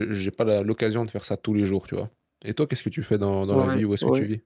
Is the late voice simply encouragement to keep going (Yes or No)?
No